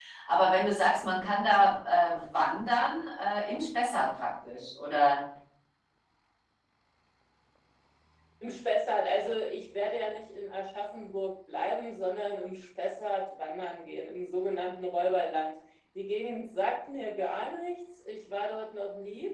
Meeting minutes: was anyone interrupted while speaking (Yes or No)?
No